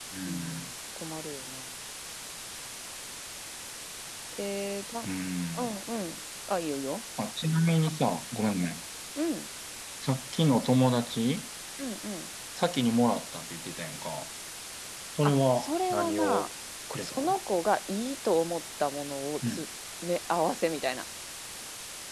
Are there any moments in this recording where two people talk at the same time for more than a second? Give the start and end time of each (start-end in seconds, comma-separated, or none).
15.2-16.5